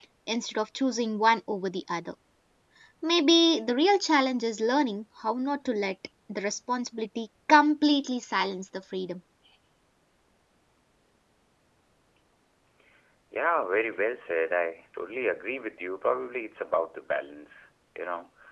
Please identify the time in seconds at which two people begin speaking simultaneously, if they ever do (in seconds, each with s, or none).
none